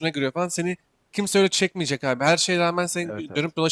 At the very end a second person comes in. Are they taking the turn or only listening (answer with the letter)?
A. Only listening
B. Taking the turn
A